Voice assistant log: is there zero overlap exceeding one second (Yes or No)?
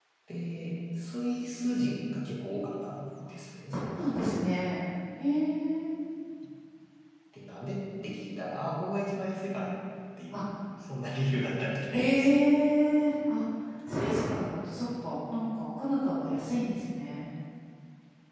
Yes